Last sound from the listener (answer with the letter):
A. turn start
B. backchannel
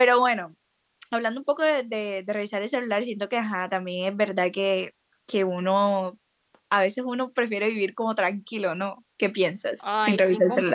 A